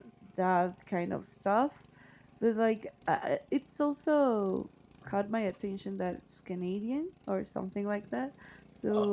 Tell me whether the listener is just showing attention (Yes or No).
Yes